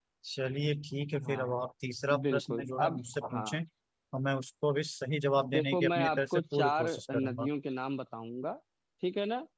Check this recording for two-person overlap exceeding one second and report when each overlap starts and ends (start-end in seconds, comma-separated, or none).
2.2-3.6, 5.5-7.5